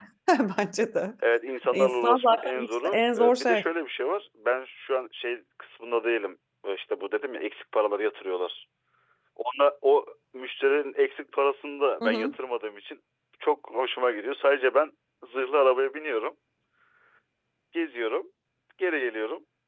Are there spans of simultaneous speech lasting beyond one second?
Yes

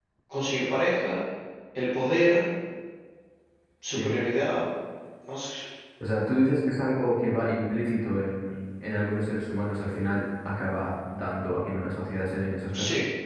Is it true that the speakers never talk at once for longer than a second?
Yes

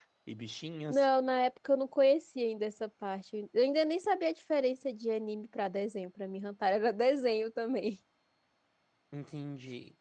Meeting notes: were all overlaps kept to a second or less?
Yes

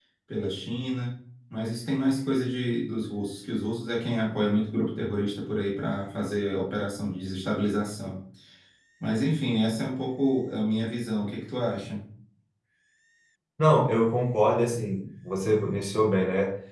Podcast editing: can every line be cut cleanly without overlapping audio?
Yes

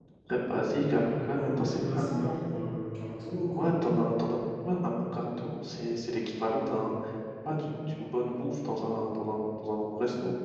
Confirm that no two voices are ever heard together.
No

